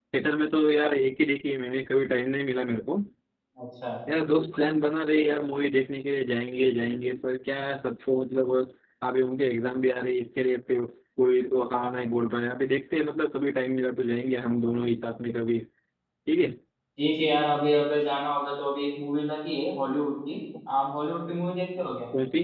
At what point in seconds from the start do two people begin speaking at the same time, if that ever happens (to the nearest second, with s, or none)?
none